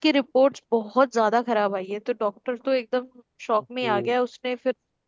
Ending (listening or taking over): listening